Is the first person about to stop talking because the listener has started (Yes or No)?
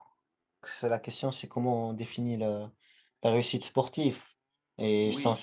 No